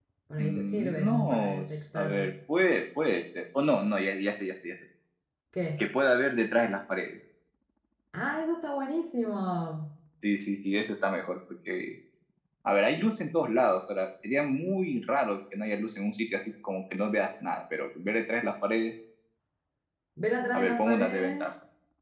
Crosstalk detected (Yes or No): Yes